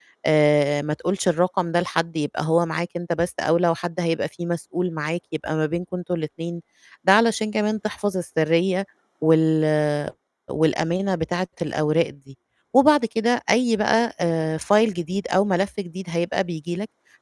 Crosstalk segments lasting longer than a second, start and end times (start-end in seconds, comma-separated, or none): none